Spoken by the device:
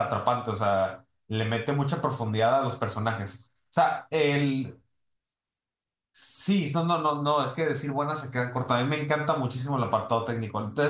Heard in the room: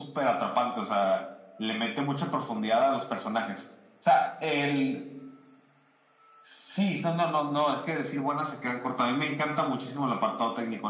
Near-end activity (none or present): none